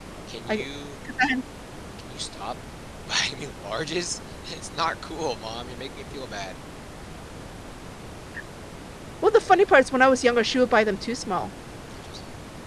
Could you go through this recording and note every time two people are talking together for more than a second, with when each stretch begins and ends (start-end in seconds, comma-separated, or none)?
none